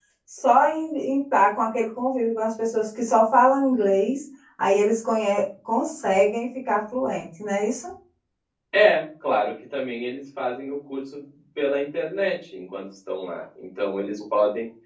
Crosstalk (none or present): none